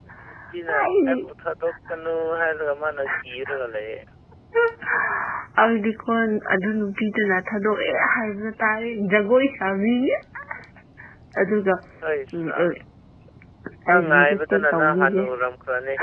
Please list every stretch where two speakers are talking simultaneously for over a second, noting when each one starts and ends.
13.9-15.2

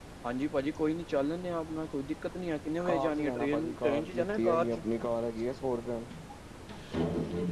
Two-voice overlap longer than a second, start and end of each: 2.9-4.8

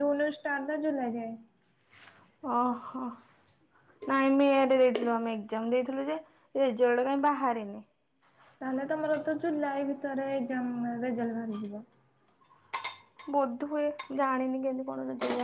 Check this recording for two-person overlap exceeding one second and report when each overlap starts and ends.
none

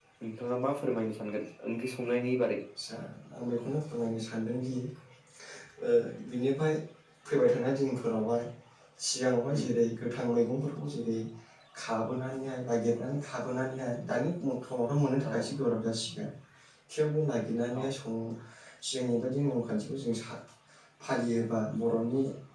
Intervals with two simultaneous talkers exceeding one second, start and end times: none

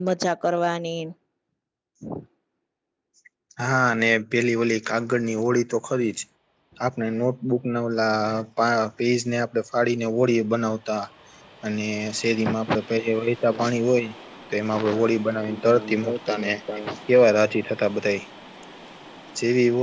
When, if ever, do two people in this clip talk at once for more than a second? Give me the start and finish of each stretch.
15.3-16.5

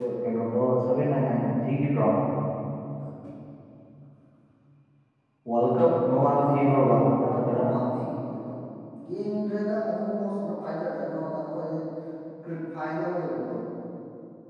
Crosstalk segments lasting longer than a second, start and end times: 6.4-7.6

